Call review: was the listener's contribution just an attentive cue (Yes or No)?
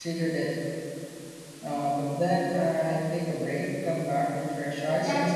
No